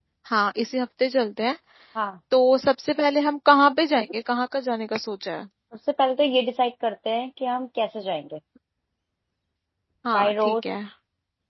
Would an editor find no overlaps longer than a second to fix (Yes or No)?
Yes